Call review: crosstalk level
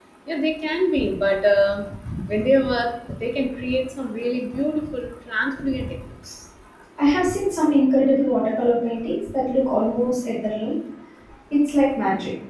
none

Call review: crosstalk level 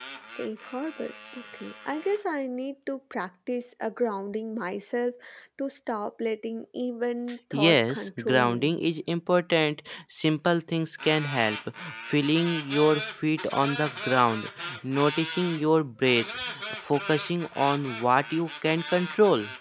present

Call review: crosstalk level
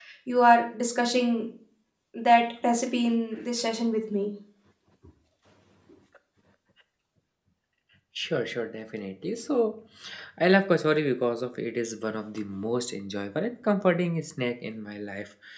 none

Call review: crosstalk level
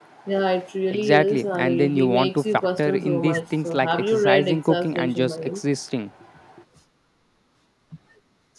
present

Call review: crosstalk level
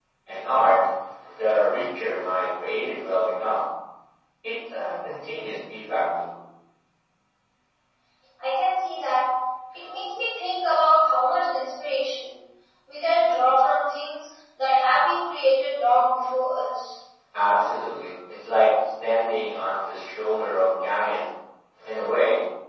none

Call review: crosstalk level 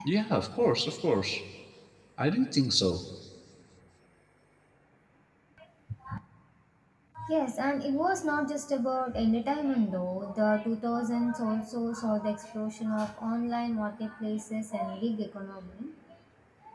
none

